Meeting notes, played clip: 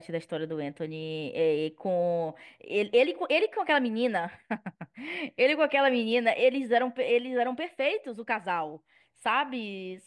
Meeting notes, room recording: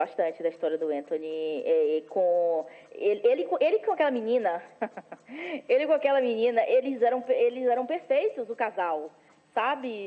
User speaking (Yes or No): No